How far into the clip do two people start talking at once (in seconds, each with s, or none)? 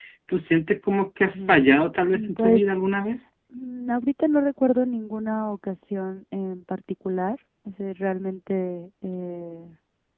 1.3 s